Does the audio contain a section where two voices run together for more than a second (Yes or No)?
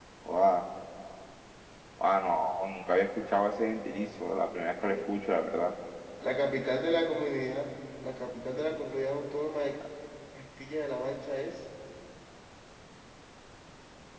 No